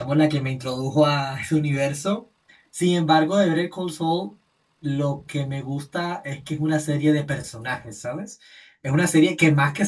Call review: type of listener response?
listening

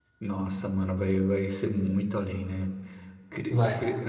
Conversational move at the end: listening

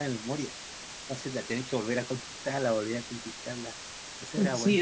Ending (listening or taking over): taking over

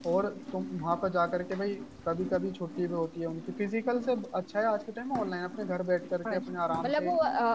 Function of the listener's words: taking over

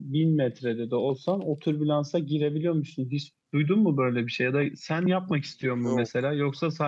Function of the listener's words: listening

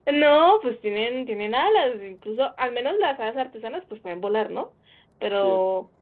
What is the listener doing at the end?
listening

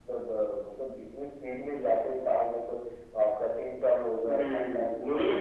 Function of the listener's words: taking over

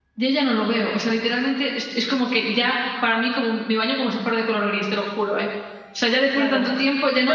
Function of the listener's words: taking over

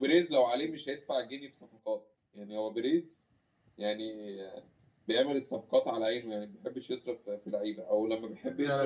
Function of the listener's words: taking over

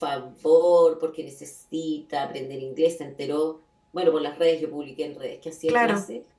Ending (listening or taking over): listening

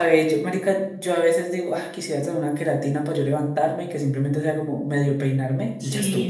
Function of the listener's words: taking over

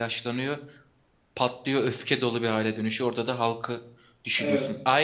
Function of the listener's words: listening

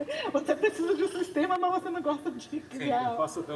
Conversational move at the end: taking over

